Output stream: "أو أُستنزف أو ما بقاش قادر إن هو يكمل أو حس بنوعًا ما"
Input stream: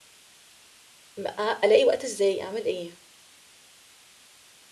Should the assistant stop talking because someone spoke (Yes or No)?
Yes